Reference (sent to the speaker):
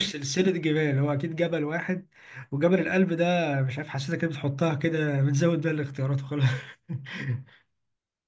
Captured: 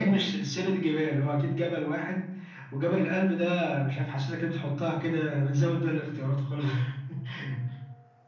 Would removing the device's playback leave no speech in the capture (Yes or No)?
Yes